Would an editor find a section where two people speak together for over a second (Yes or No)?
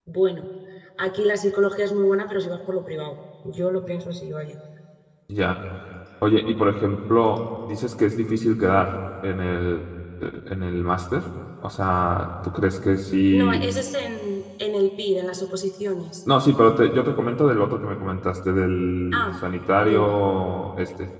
No